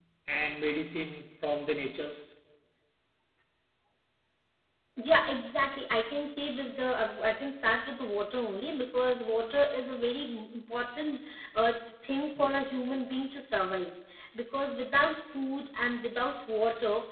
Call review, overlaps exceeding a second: none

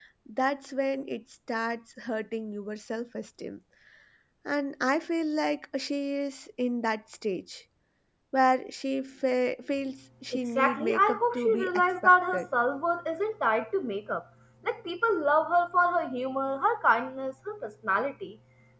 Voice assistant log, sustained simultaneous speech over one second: present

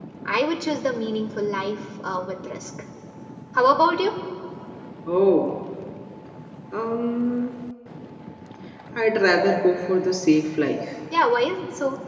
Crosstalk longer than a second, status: none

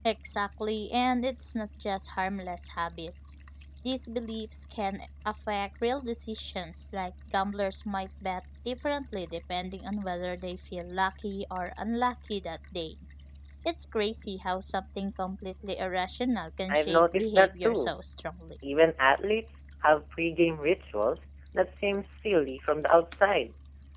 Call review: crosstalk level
present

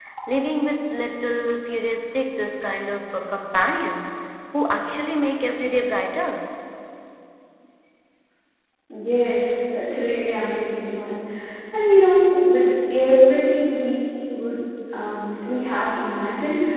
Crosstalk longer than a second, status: none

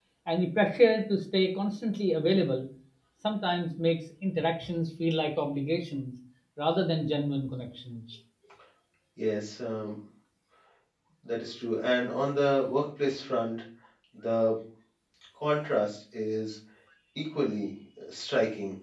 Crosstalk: none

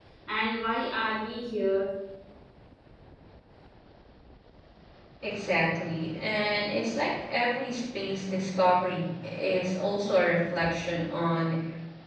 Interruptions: none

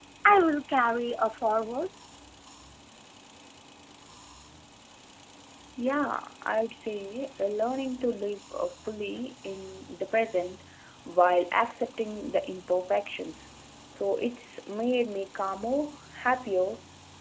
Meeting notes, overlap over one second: none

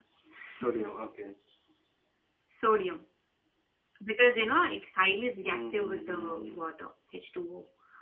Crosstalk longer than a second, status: present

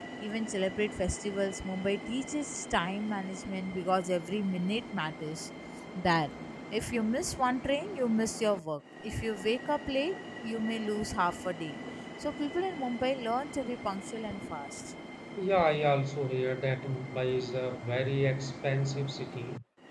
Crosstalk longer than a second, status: none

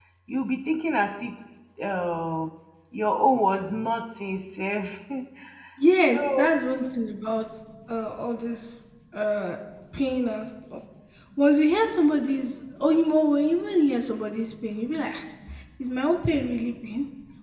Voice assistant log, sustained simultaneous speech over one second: none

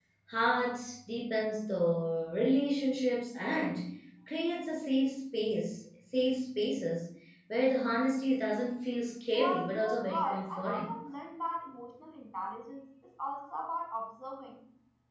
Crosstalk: present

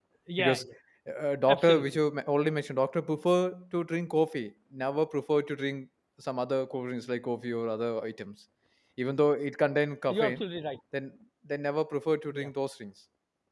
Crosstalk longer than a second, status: none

